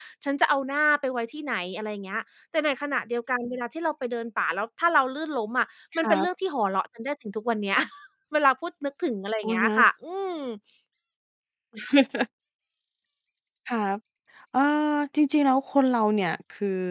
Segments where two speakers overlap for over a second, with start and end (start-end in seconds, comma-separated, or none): none